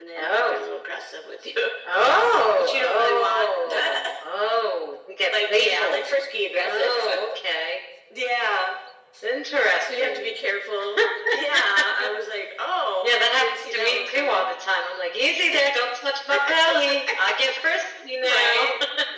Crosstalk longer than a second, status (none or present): present